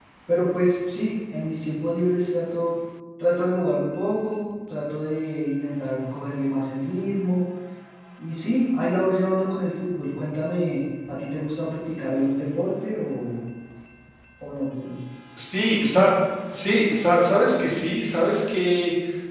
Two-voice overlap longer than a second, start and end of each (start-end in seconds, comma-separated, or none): none